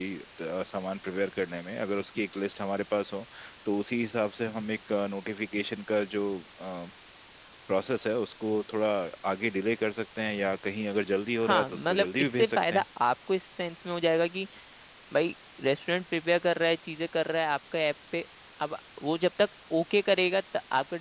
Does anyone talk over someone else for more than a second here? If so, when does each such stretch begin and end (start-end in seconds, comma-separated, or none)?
11.4-12.8